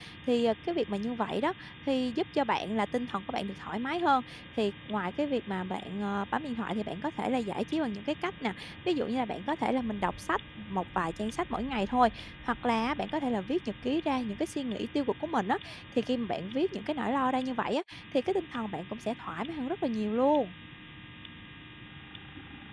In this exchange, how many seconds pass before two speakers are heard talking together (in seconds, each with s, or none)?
none